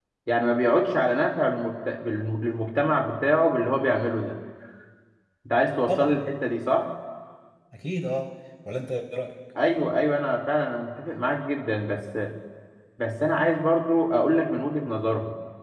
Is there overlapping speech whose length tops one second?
No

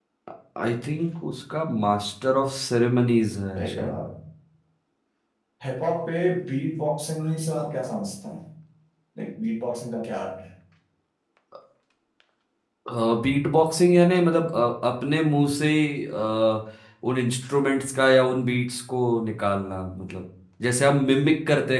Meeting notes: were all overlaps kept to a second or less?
Yes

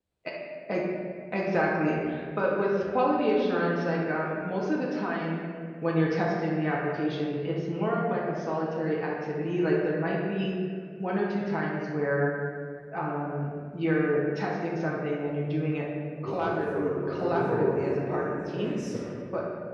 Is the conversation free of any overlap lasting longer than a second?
No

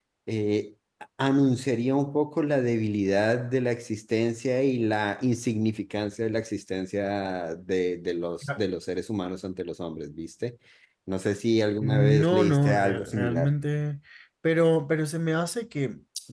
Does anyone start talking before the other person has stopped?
Yes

